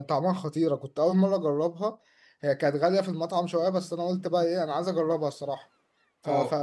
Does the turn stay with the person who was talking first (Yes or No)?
Yes